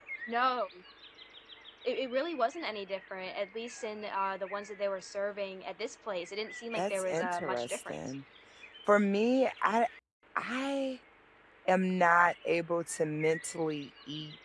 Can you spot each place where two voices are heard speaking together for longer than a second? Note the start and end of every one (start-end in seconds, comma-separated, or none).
6.8-8.0